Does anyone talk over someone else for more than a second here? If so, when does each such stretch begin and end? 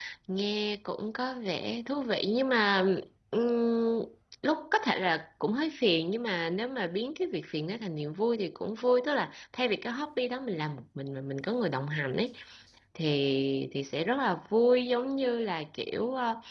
none

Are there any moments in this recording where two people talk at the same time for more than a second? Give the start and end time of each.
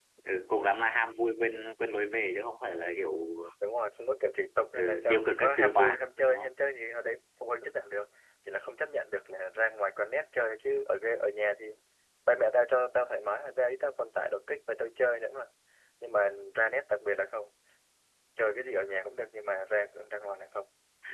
4.7-6.5

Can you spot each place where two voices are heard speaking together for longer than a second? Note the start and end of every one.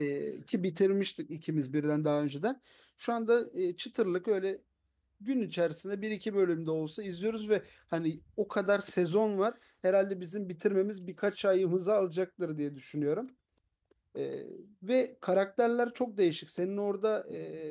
none

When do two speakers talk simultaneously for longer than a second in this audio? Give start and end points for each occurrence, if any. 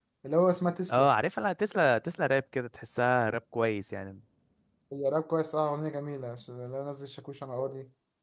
none

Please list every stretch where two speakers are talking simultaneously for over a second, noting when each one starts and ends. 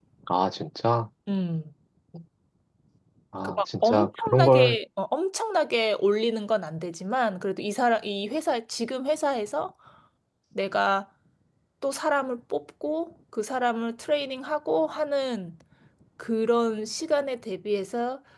3.4-4.8

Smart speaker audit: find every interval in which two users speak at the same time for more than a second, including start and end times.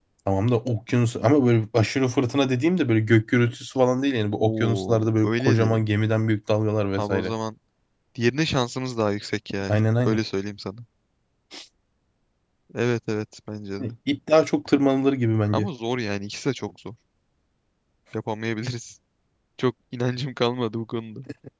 4.3-5.9

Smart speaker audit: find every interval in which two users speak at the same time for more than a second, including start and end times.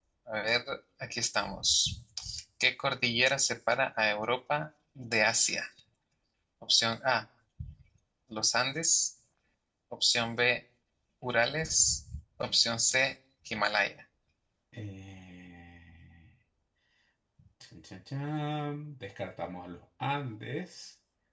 none

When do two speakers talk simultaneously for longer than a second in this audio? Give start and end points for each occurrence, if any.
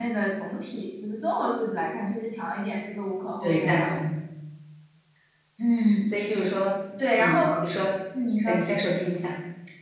none

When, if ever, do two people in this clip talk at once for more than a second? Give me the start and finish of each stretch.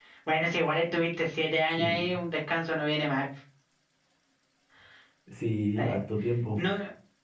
none

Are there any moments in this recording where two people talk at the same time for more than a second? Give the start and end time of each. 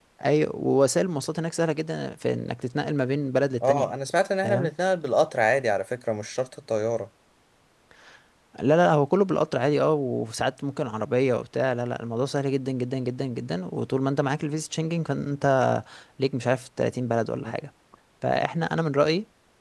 none

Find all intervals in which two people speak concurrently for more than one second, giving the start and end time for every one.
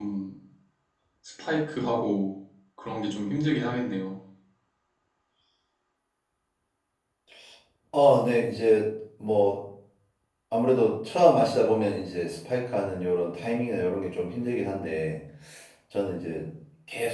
none

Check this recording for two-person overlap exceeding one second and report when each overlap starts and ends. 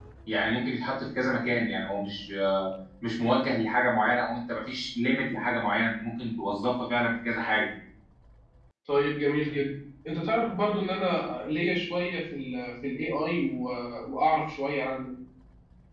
none

